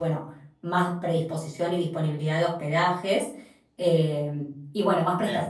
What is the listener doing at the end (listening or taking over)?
listening